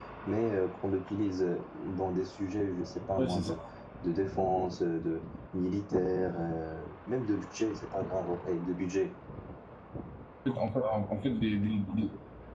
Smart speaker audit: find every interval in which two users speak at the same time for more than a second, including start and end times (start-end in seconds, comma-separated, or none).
none